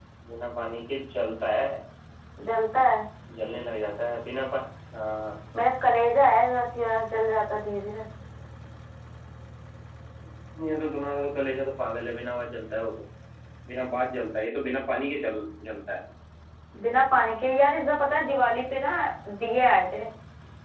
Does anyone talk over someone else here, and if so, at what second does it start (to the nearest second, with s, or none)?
none